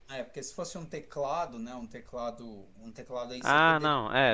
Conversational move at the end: taking over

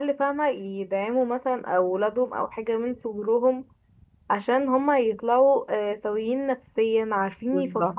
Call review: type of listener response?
listening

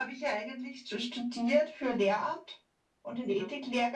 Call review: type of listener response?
listening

